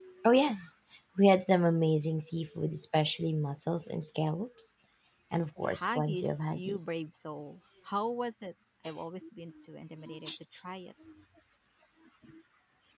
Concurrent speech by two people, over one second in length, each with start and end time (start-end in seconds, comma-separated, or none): 5.6-6.9